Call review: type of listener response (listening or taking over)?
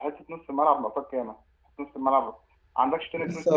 taking over